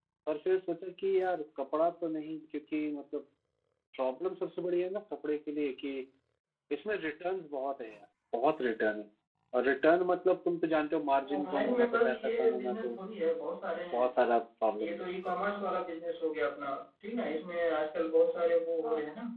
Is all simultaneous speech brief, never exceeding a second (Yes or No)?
No